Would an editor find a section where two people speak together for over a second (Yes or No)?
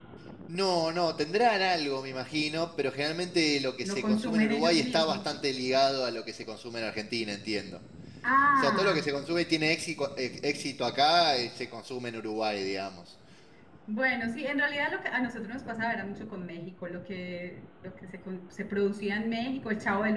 Yes